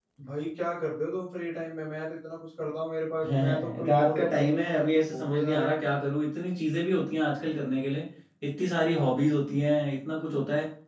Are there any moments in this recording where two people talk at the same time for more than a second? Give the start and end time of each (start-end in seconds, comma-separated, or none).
3.2-5.8